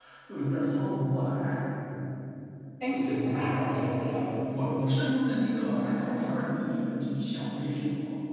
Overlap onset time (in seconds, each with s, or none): none